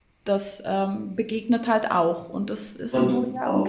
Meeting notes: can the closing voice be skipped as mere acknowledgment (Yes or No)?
No